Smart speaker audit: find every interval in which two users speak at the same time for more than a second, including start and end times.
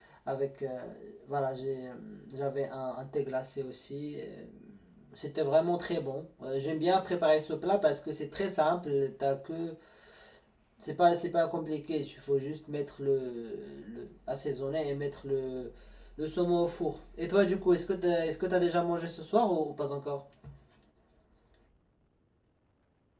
none

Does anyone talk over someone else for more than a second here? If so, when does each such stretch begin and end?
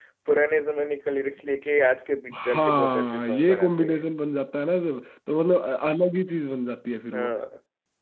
2.4-4.0

